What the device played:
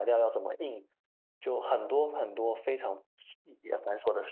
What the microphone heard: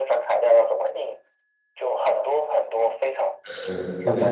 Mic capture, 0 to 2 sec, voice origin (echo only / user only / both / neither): echo only